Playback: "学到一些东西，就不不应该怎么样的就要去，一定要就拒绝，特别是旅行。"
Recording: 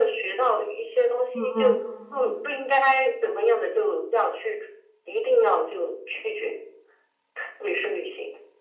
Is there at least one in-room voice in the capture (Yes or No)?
Yes